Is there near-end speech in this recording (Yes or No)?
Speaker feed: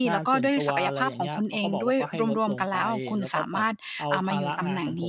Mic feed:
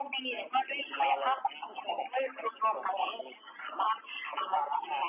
No